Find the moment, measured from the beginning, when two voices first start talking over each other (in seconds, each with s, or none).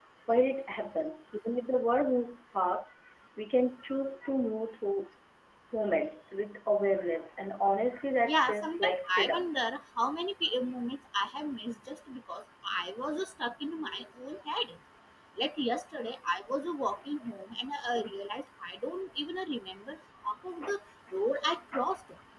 8.3 s